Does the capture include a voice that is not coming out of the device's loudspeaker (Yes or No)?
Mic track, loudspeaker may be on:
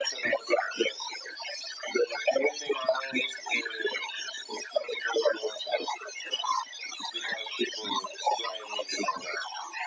No